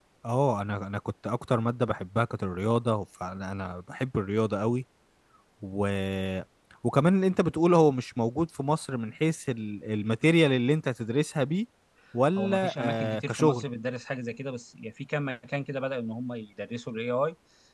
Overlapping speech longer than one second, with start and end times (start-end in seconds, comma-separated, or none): 12.4-13.7